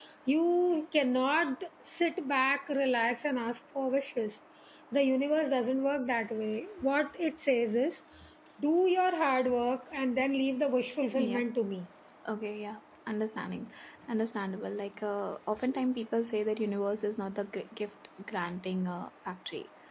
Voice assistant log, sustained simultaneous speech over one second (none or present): none